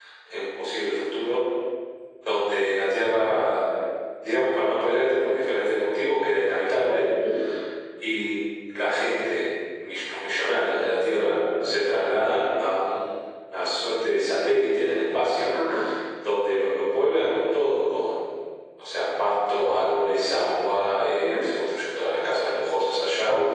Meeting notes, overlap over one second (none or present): none